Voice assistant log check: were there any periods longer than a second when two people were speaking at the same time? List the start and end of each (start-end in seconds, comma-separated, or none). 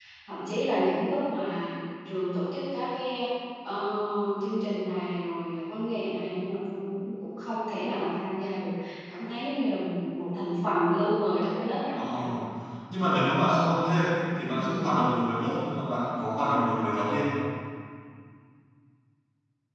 none